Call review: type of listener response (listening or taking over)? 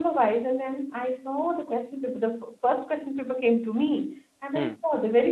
listening